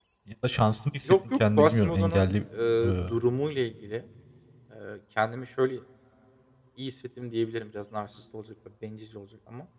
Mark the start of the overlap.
1.1 s

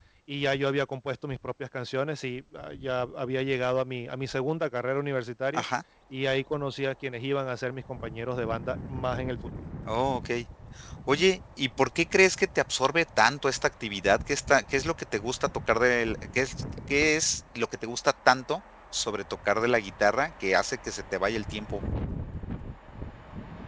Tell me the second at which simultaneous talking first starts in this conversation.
none

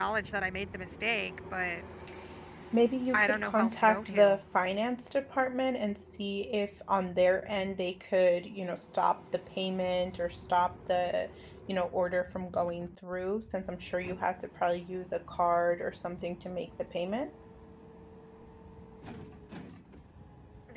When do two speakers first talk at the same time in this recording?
3.1 s

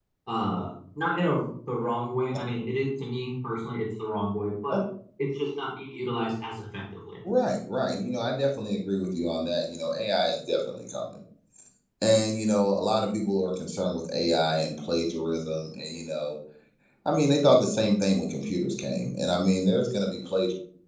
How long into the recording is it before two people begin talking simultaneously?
none

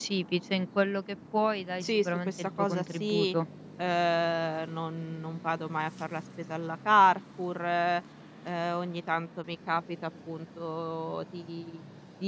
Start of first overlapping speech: 1.8 s

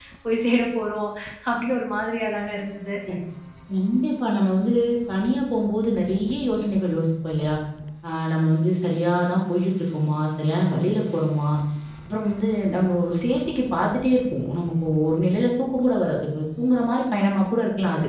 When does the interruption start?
none

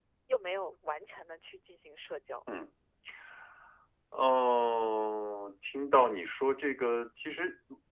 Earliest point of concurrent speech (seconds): none

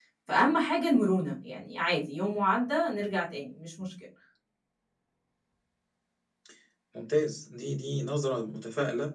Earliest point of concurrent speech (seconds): none

